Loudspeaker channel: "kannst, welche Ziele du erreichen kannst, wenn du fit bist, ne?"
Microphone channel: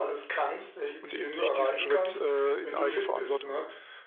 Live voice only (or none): und eben nicht diesen Schritt, äh, in Eigenverantwortung